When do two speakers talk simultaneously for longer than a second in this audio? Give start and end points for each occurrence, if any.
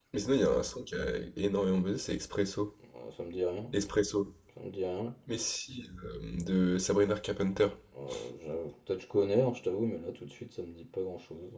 none

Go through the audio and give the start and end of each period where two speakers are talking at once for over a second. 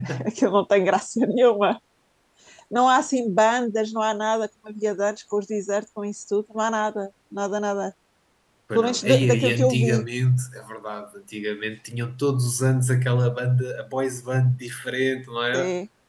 8.8-10.0

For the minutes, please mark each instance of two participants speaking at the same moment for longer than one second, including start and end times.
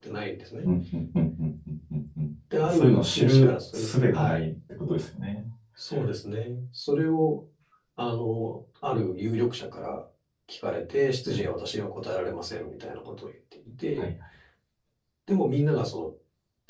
2.6-4.4

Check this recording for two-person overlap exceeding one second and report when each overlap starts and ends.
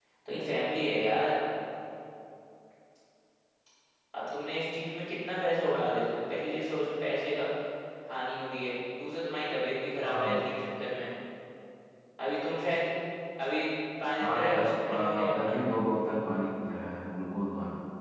14.2-15.6

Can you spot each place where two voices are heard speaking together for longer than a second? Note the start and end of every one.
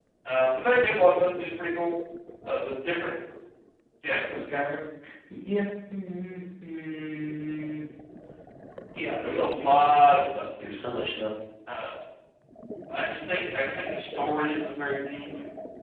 9.2-10.7

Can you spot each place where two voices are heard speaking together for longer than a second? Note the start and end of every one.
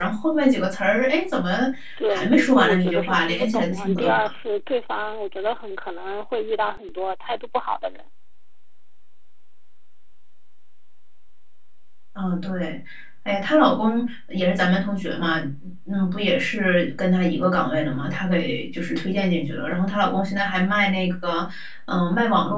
2.1-4.3

